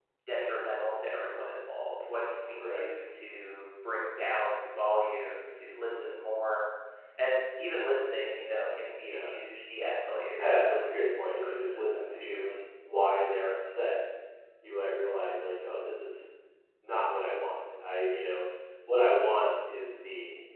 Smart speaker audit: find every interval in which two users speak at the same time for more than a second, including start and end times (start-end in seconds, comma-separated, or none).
10.4-12.7